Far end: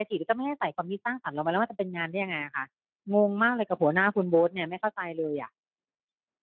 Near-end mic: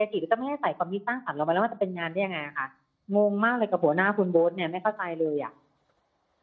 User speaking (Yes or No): No